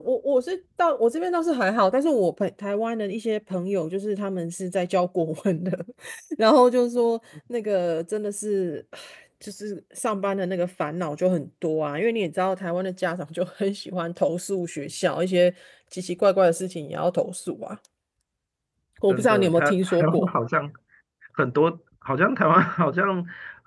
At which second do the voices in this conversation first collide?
19.1 s

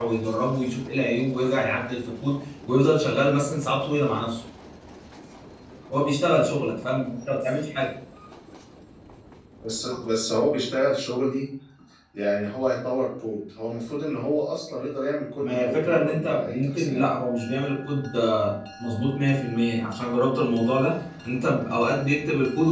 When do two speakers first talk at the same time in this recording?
15.4 s

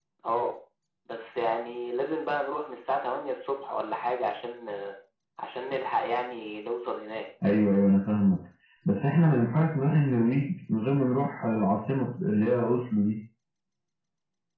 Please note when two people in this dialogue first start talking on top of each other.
none

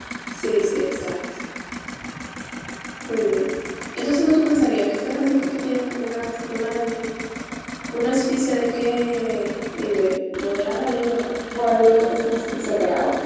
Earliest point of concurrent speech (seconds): none

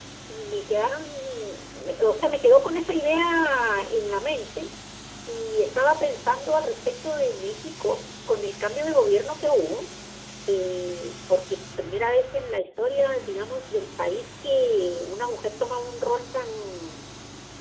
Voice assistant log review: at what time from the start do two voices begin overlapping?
none

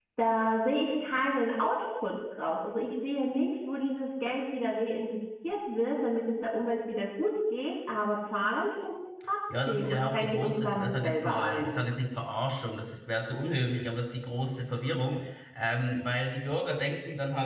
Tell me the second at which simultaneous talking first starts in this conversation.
9.5 s

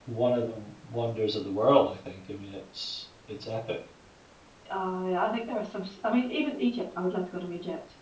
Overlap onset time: none

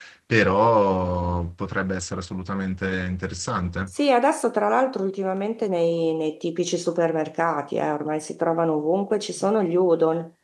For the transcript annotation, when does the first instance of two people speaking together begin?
none

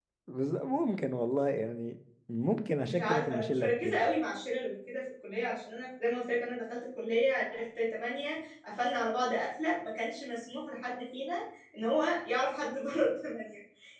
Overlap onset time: 2.8 s

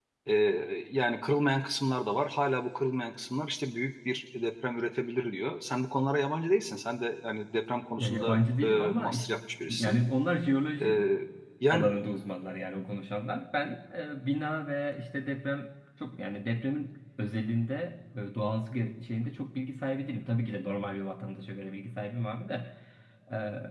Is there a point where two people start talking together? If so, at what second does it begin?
8.0 s

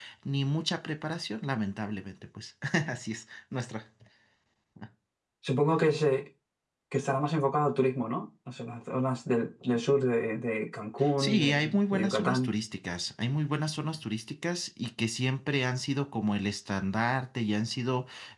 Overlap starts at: 11.0 s

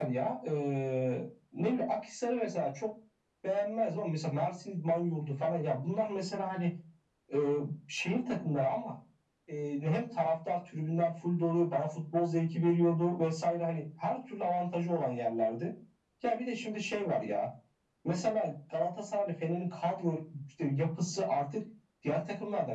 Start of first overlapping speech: none

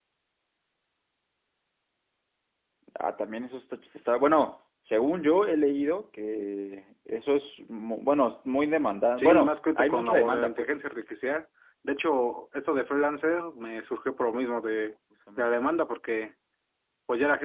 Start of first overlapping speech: 9.2 s

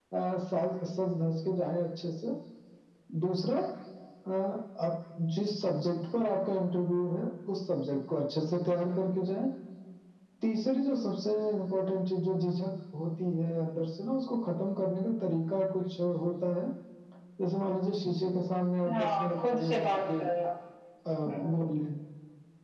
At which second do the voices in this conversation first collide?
18.9 s

